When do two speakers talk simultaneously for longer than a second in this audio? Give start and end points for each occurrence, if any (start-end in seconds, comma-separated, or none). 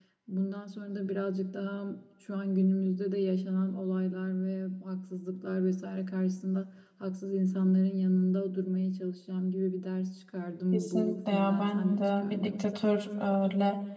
10.7-12.8